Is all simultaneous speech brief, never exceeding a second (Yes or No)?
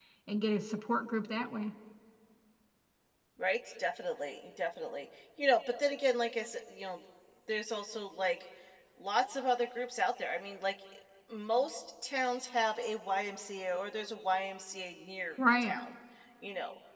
Yes